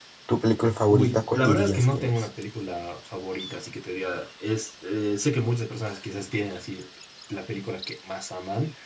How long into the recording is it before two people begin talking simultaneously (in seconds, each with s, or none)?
0.9 s